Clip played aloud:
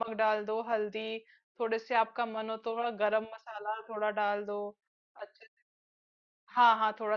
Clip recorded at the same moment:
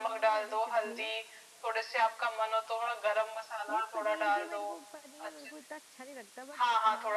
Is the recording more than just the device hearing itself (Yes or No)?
Yes